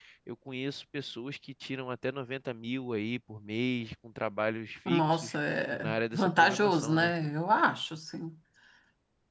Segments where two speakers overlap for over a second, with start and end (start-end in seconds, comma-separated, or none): 5.8-7.1